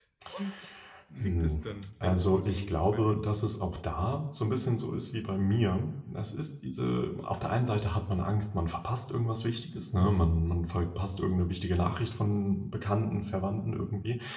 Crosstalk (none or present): present